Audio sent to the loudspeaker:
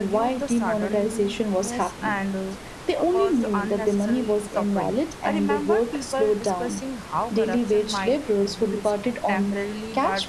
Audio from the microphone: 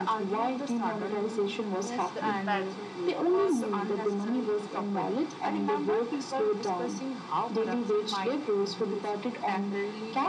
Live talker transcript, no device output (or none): the impact there really was.